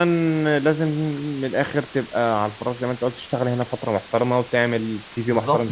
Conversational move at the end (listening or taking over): taking over